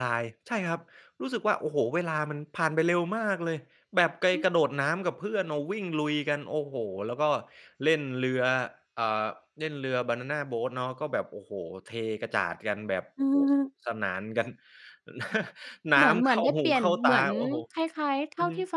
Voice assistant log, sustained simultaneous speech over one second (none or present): present